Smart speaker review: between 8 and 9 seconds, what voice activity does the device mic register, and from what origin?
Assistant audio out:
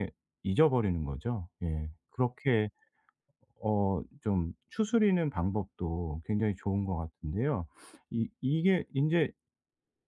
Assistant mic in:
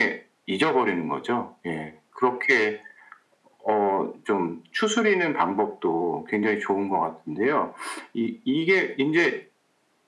echo only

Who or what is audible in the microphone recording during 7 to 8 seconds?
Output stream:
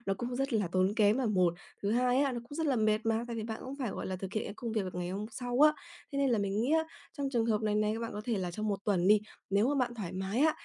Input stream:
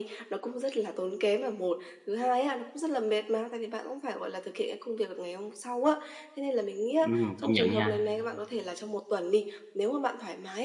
both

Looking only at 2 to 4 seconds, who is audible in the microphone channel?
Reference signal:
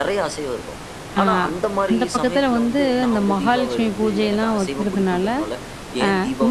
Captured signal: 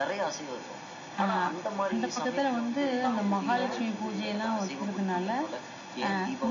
both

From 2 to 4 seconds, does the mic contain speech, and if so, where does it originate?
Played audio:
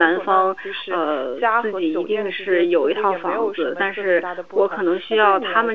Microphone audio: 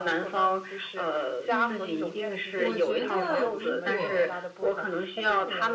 both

